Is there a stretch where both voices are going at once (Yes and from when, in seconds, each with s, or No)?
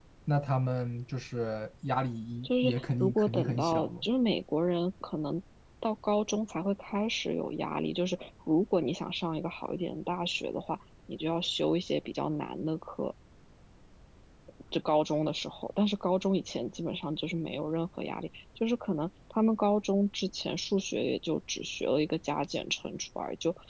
Yes, from 2.4 s